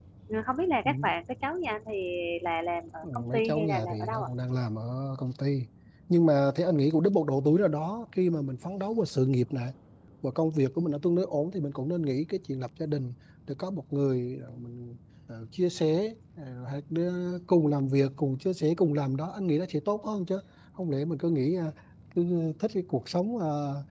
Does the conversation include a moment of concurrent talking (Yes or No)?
Yes